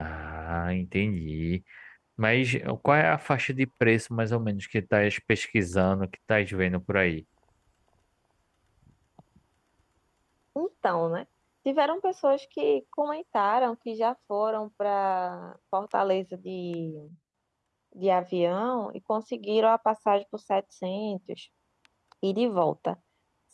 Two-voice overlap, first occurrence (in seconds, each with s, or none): none